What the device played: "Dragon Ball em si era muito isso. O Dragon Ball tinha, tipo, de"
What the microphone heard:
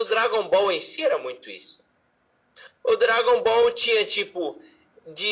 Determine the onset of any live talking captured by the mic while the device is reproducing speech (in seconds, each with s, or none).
none